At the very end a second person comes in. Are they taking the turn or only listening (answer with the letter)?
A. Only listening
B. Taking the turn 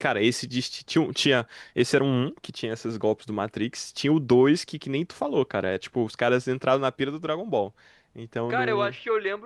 B